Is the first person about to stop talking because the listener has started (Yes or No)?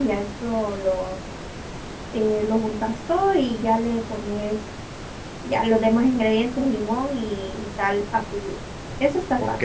Yes